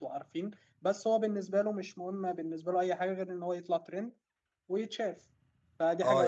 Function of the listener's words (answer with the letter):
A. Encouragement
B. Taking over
B